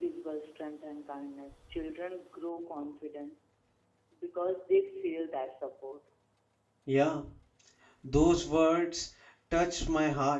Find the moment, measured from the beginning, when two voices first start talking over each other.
none

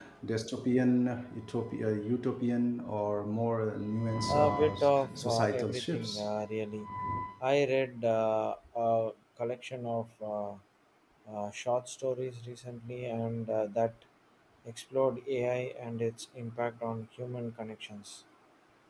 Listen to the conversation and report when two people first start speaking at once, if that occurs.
4 s

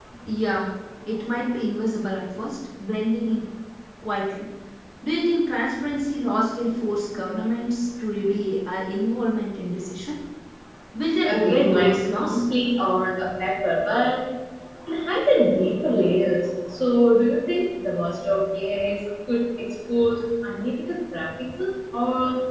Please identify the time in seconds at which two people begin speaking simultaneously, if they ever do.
11 s

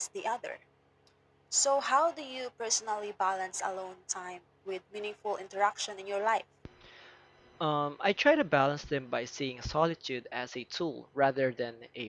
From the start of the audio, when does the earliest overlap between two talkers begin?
none

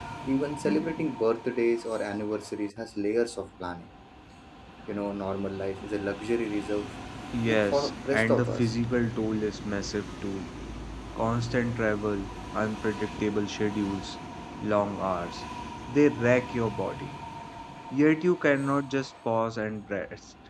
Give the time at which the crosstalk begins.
7 s

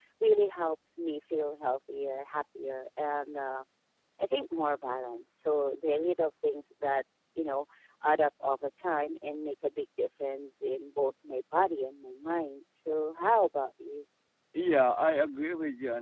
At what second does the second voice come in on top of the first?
none

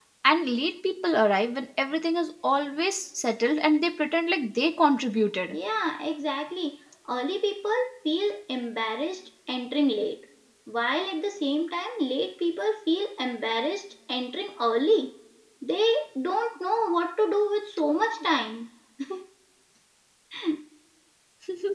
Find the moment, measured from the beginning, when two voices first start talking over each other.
none

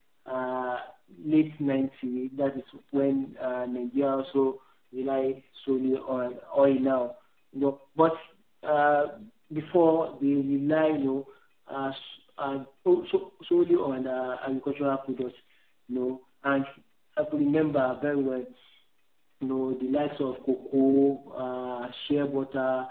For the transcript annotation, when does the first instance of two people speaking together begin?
none

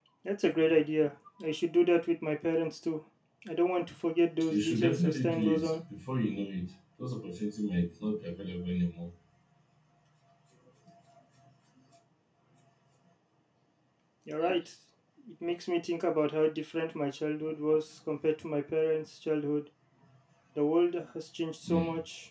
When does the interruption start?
4 s

